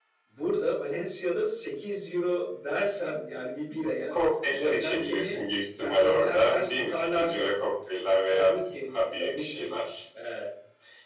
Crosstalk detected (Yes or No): Yes